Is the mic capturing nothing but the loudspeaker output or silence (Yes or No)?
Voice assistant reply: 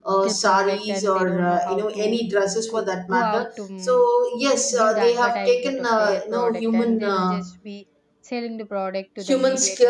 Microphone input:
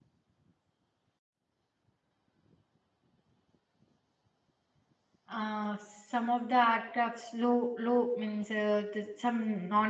No